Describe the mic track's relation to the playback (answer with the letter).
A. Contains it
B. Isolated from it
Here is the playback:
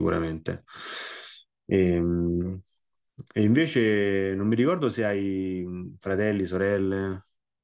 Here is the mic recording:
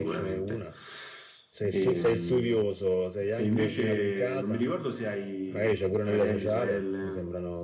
A